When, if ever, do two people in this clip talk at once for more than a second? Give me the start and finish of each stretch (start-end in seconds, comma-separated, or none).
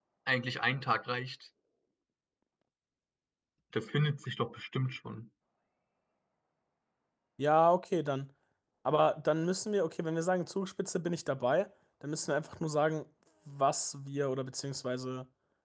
none